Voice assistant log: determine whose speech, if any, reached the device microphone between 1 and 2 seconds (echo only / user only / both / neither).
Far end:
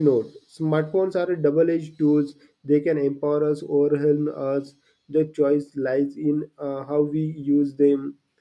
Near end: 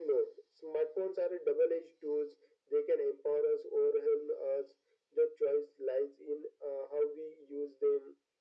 echo only